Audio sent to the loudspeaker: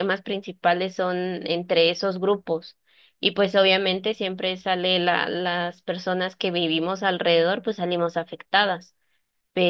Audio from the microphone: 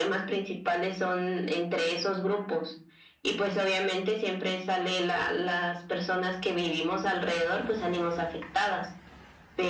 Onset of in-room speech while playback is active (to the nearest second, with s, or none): none